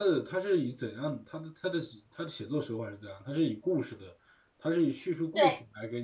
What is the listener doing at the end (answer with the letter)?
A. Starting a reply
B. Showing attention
B